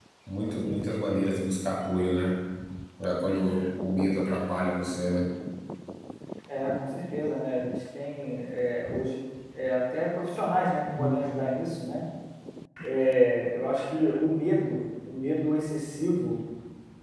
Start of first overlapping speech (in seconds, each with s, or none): none